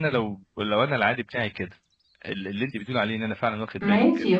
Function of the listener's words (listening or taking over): taking over